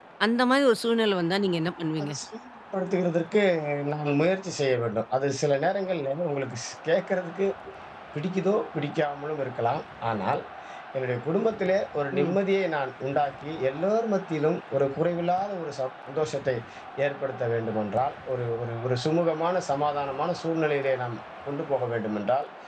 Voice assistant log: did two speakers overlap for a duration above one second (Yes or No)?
No